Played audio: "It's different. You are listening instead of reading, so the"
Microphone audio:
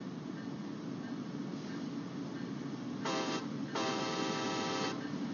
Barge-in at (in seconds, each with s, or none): none